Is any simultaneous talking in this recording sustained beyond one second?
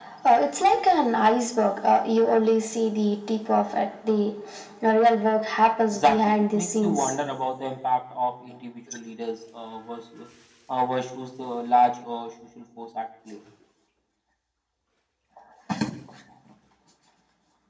Yes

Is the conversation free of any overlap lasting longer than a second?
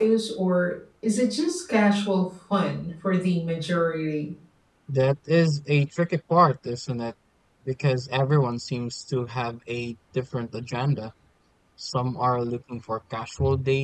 Yes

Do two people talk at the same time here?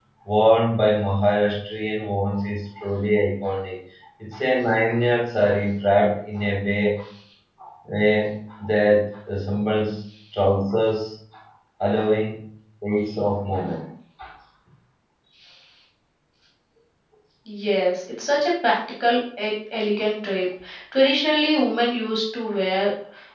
No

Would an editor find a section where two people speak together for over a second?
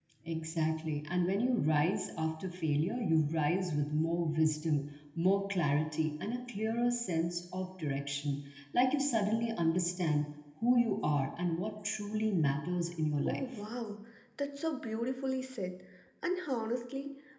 No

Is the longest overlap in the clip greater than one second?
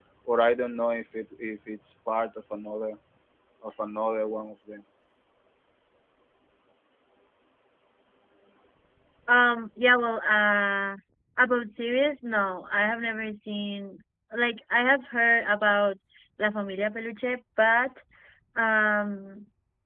No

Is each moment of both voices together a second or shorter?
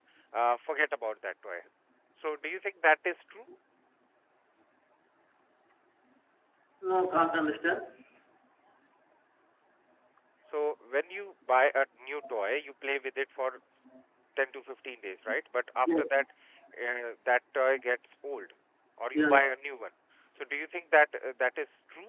Yes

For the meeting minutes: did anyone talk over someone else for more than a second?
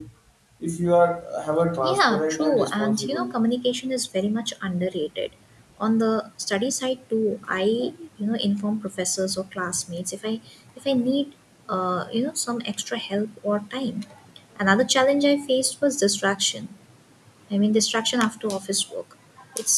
Yes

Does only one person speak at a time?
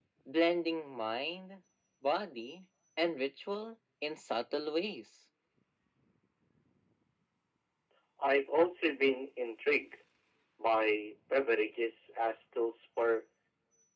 Yes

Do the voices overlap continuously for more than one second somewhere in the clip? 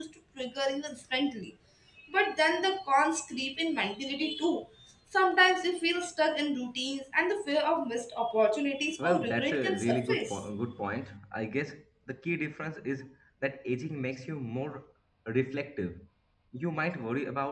Yes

